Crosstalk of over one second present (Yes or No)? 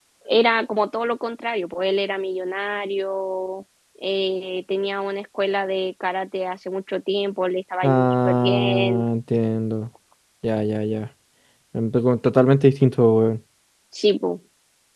Yes